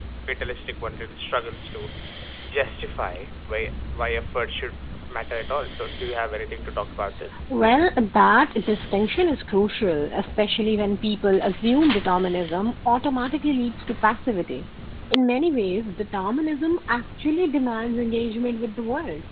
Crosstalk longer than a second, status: none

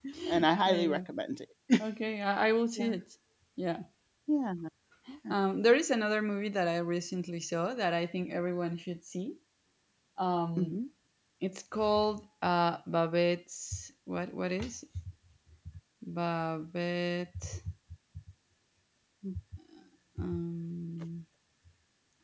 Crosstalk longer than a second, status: none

